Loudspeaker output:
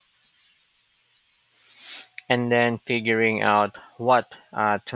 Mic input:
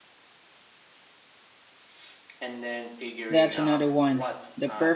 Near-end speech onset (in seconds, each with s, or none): 3.3 s